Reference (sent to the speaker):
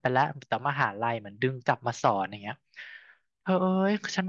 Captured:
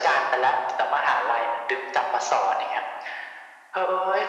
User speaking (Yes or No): No